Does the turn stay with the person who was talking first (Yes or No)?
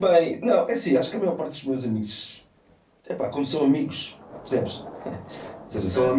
Yes